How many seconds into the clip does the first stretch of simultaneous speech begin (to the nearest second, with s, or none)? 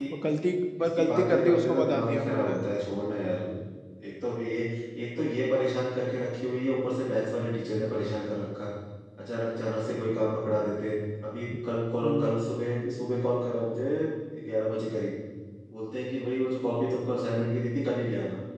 1 s